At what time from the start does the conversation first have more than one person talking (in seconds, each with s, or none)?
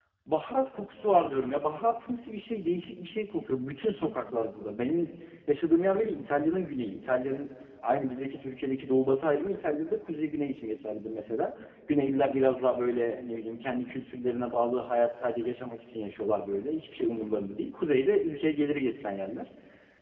none